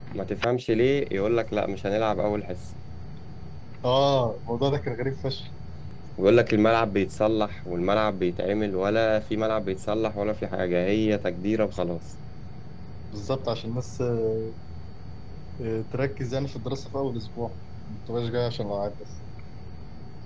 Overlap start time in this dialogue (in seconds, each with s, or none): none